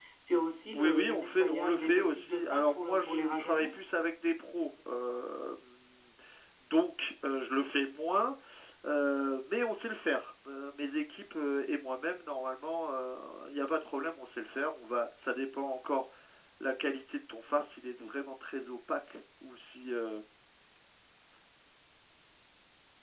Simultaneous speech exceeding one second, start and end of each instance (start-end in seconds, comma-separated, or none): 0.7-3.7